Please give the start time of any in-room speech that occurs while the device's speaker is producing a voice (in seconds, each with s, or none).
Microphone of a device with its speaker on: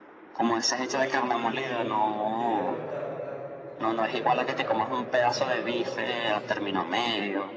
0.8 s